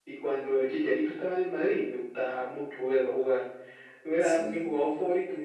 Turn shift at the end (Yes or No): No